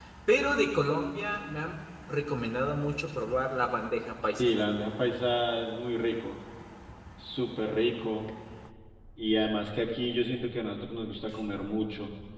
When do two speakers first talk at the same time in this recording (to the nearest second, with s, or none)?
none